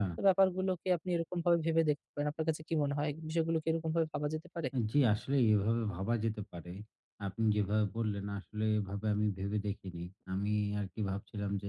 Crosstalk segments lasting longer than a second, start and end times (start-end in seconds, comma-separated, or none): none